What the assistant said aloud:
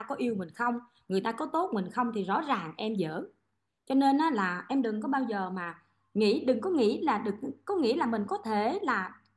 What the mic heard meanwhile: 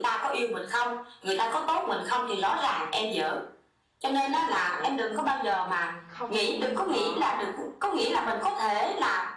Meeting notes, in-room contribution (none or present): present